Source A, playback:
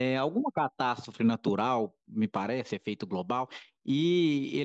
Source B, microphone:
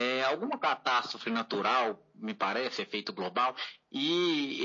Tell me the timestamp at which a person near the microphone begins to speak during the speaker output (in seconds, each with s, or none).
none